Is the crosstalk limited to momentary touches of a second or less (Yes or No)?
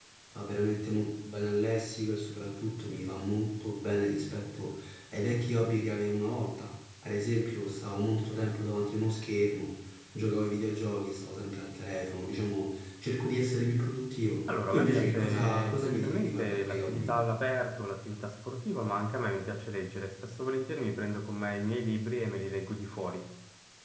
No